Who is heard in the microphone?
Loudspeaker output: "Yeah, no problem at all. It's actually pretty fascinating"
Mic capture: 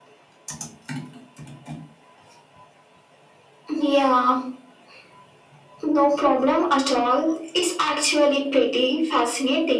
echo only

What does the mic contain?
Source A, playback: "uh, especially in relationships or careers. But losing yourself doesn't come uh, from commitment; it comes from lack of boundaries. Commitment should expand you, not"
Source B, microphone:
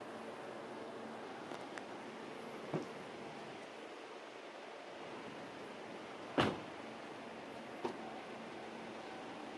neither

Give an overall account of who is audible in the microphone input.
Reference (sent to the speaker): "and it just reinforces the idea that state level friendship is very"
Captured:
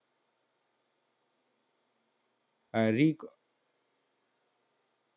user only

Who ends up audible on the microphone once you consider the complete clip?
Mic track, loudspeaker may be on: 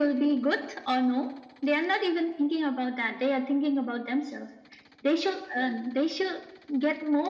echo only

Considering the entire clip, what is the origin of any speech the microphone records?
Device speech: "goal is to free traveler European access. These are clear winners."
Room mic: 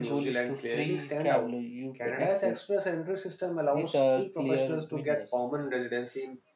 both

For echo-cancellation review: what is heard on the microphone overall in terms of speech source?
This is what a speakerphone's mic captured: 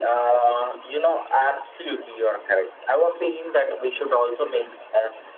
echo only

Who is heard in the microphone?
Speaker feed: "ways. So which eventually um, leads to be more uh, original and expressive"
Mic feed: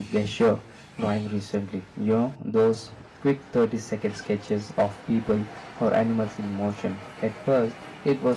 user only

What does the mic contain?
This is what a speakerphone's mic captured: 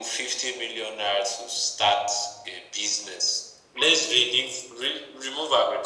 echo only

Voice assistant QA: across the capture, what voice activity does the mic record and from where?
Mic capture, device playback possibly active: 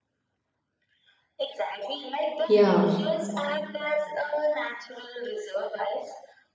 both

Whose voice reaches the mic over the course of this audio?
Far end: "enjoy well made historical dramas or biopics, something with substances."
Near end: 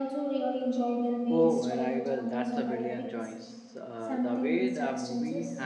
both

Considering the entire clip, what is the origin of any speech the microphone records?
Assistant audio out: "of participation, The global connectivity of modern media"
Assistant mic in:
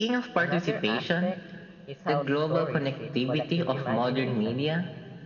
both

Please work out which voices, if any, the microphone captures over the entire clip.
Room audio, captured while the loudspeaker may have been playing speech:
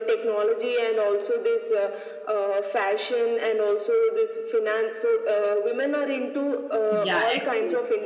both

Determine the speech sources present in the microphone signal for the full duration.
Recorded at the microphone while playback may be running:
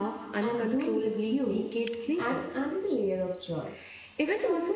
both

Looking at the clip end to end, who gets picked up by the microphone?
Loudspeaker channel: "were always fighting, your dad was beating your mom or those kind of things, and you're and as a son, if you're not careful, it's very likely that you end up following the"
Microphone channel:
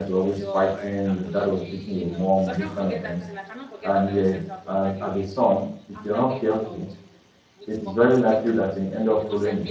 both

